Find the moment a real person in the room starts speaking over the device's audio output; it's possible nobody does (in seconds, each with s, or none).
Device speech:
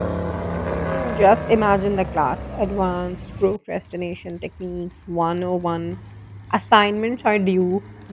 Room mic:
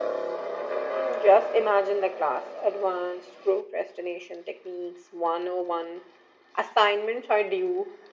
none